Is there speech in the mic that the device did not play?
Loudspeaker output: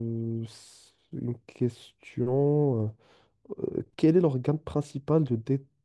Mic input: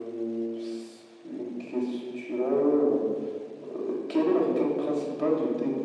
No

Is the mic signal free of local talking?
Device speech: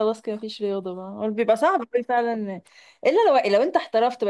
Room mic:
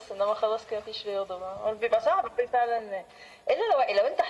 Yes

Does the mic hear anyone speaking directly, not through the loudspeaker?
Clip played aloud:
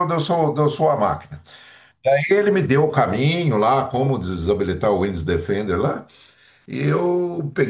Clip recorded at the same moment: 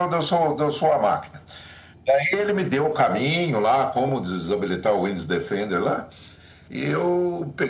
No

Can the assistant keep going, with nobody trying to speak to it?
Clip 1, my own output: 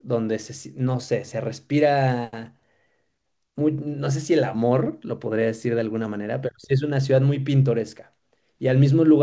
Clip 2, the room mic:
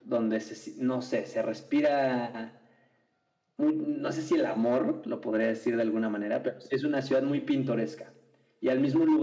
Yes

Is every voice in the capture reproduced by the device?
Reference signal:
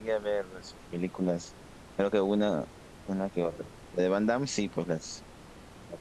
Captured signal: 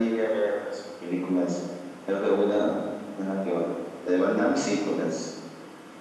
Yes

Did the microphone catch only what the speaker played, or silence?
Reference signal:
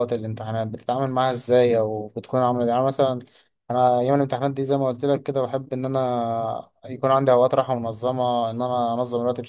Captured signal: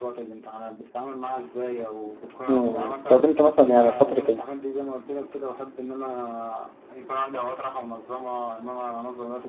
No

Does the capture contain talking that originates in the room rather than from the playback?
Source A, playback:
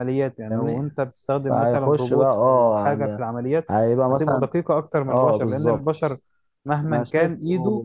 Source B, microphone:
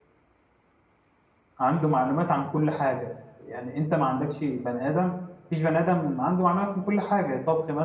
Yes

